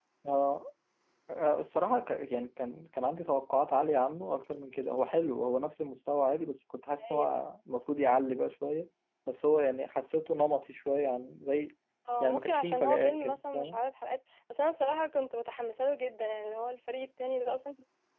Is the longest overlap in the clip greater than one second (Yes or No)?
Yes